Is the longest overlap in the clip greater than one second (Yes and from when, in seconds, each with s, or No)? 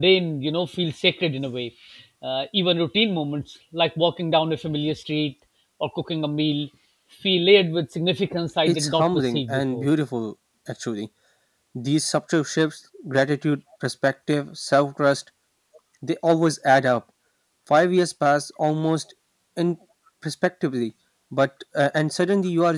Yes, from 8.7 s